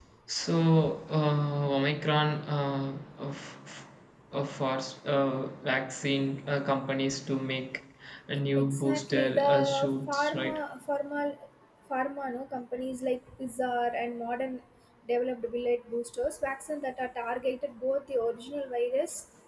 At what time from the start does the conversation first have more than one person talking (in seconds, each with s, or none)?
8.6 s